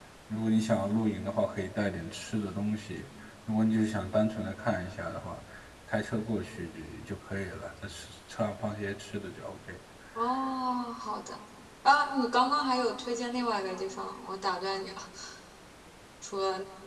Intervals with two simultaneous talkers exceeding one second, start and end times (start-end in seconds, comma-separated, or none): none